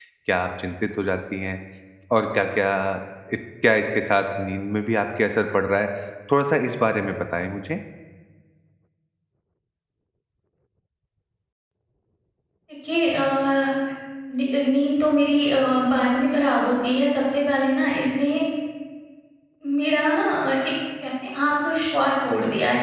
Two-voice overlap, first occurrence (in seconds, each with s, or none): none